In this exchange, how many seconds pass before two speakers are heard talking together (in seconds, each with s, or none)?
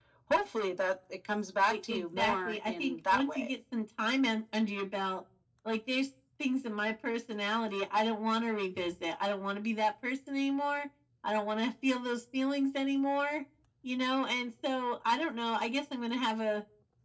1.7 s